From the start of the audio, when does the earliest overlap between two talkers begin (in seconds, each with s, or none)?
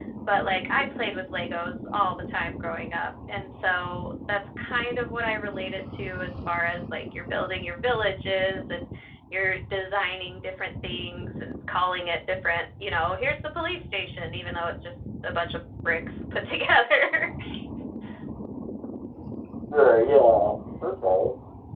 none